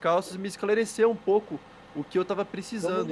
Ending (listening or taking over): taking over